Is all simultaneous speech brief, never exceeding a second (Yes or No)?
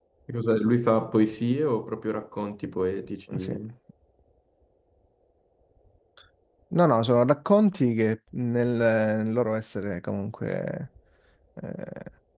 Yes